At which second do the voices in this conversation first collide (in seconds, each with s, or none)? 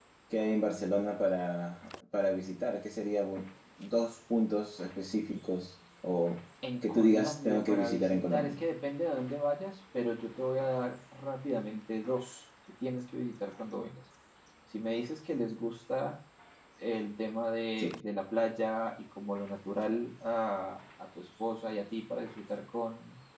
6.8 s